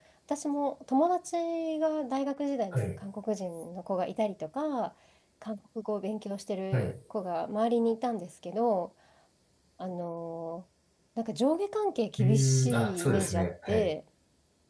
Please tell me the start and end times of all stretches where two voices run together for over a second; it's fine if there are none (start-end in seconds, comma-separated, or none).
12.2-13.9